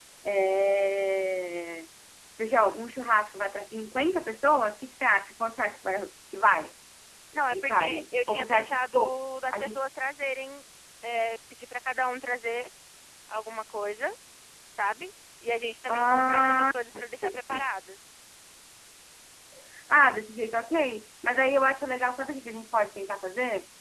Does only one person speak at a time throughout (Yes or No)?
No